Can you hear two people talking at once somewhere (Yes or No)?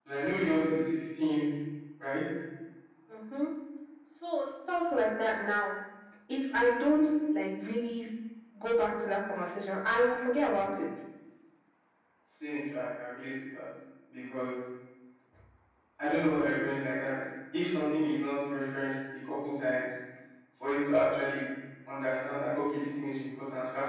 No